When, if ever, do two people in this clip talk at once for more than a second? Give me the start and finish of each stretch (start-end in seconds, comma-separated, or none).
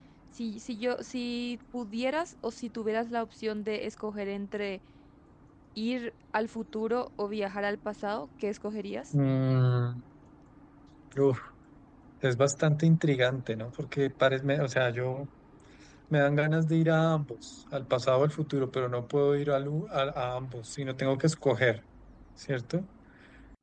none